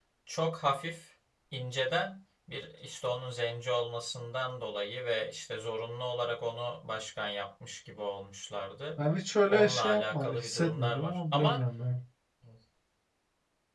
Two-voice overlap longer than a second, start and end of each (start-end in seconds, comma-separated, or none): 9.5-11.6